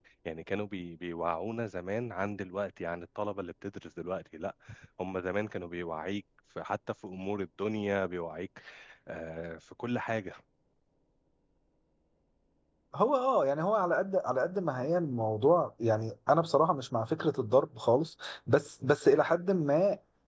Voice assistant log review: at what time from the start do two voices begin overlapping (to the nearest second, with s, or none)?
none